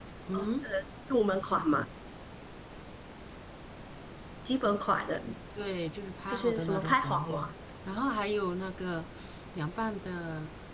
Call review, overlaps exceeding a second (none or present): present